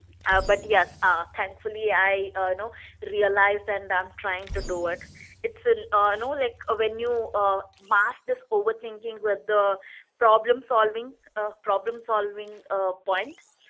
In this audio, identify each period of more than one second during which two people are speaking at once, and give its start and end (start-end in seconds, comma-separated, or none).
none